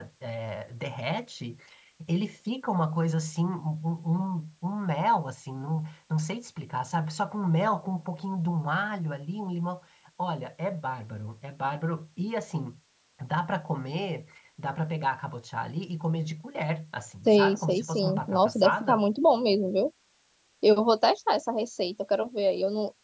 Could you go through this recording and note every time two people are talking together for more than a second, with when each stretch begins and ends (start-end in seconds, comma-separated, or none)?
17.3-19.0